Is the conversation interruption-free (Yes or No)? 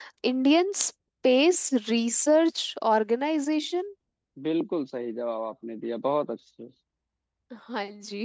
Yes